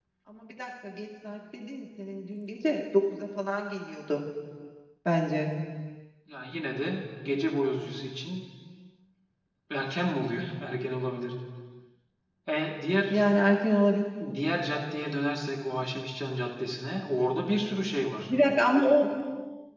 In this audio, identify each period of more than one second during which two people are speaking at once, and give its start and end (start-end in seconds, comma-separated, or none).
none